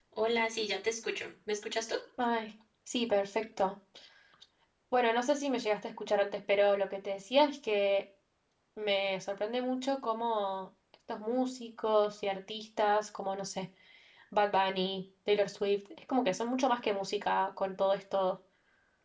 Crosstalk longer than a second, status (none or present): none